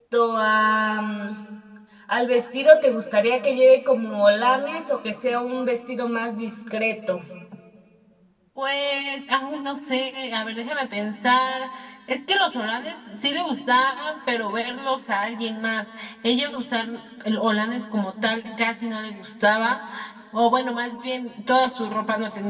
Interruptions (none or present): none